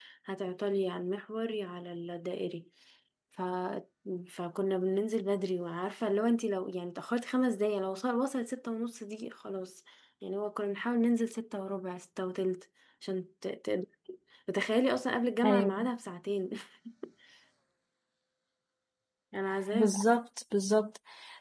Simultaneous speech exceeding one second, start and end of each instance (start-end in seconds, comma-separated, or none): none